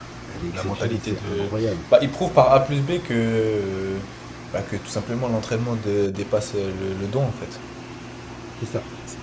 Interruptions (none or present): present